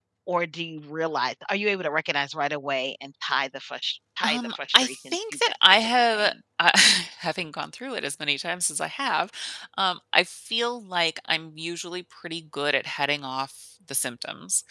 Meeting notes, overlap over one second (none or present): present